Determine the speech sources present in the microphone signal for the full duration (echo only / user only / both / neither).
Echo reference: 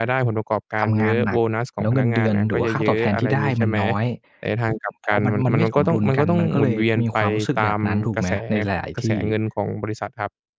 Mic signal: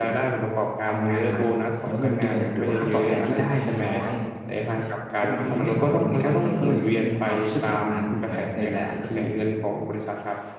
echo only